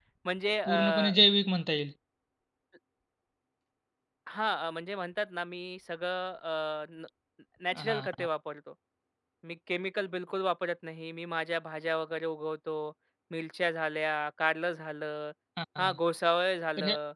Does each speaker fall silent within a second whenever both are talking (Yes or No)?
Yes